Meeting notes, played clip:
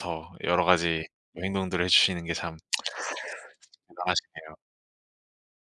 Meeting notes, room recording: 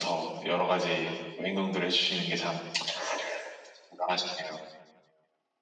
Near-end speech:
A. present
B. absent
B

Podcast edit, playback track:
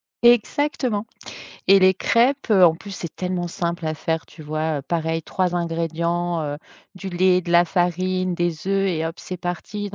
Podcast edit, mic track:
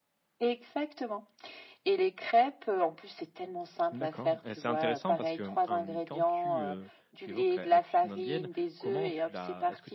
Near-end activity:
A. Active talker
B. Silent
A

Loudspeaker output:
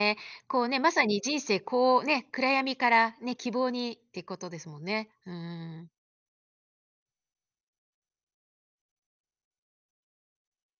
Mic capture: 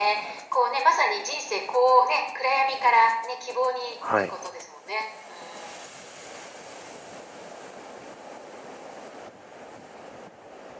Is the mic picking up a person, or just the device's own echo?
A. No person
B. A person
B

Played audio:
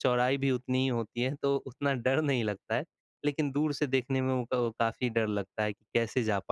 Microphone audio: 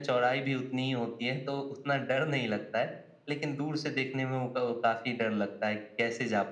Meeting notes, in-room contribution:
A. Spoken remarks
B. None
B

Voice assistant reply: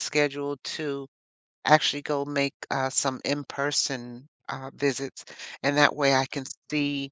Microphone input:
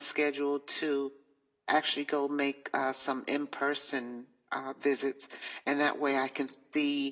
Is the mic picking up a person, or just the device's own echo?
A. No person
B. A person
A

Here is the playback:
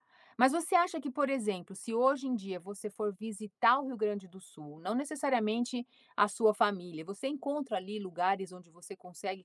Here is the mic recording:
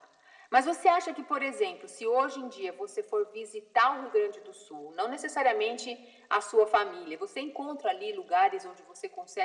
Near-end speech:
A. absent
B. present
A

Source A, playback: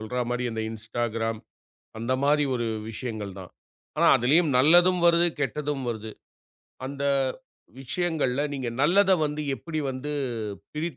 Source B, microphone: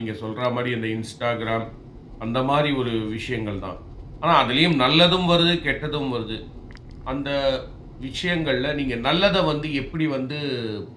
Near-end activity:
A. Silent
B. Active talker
A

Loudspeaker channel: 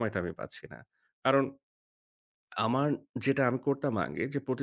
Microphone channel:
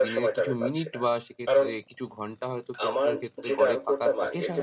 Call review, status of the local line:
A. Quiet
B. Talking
B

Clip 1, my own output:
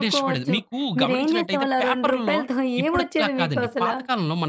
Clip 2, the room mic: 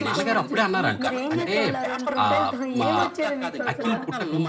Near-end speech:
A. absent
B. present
B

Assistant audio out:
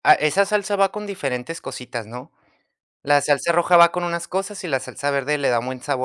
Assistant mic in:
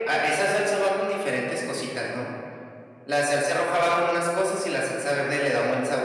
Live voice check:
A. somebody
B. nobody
B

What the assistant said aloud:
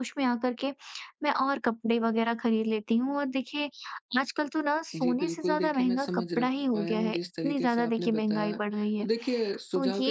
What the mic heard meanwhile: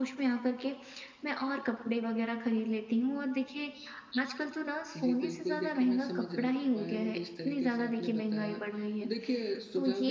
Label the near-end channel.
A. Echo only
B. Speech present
A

